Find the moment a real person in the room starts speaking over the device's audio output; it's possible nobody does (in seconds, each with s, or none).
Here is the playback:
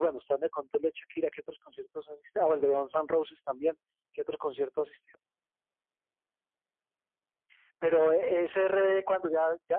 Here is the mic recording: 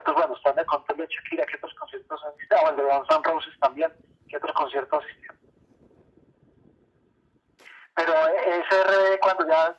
none